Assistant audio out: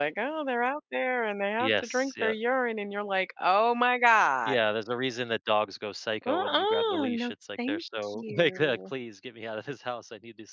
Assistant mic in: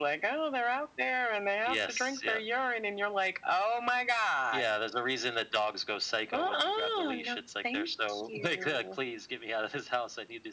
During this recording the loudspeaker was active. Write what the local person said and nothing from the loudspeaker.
none

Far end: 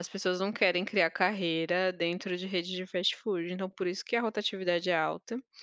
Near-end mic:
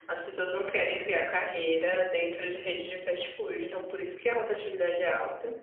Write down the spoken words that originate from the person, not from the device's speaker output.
none

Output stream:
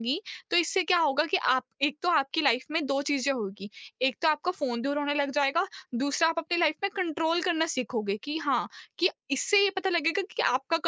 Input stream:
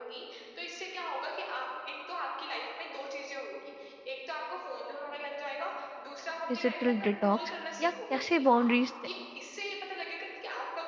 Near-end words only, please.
डिजिटल डिटॉक्स या कैसे बाउंड्रीज

